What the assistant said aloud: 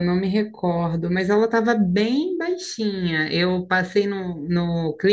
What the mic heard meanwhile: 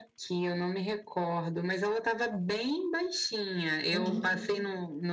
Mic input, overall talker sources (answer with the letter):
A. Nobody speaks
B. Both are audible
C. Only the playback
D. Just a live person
B